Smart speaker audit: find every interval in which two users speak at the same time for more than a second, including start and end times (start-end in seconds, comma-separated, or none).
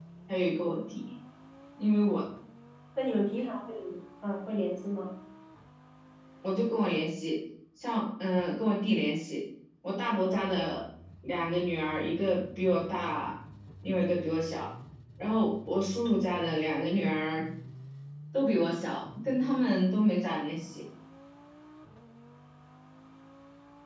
none